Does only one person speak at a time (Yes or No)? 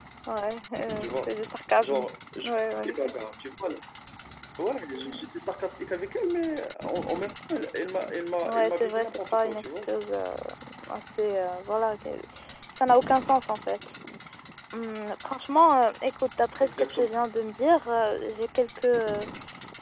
No